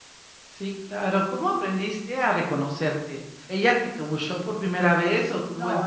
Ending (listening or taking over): taking over